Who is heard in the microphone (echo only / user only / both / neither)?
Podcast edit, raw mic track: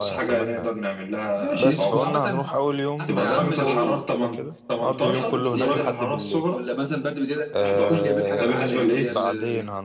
both